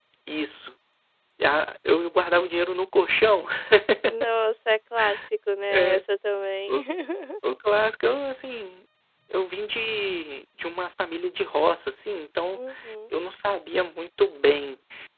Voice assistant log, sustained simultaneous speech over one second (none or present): none